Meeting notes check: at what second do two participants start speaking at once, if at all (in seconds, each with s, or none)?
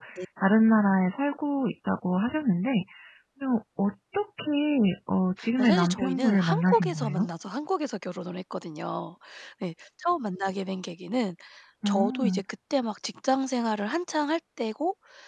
5.6 s